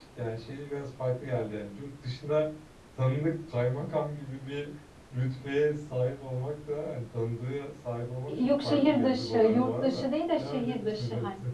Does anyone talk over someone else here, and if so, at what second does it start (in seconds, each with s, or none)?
8.3 s